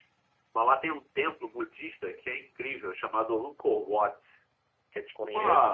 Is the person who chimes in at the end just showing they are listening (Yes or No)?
No